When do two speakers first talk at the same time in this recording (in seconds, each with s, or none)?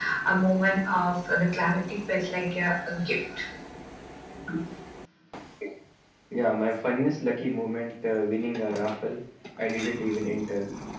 none